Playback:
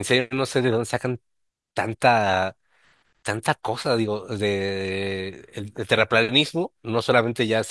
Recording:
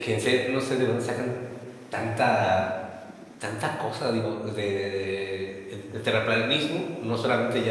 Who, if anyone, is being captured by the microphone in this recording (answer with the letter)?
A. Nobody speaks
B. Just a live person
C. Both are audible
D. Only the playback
D